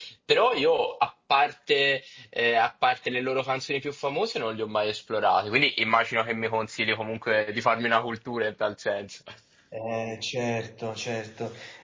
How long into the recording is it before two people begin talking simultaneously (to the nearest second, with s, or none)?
none